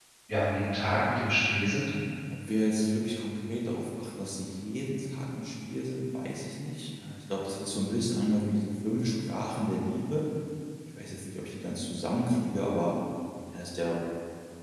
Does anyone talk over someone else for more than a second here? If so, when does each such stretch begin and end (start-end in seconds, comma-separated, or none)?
none